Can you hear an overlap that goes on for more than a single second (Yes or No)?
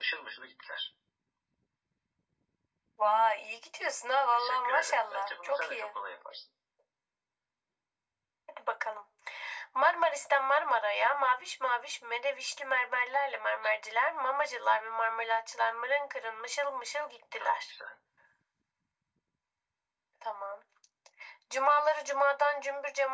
Yes